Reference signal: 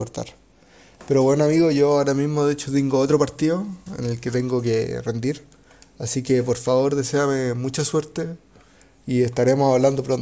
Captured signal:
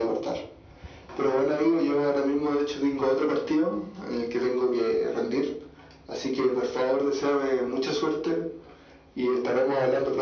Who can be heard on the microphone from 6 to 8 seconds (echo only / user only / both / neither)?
echo only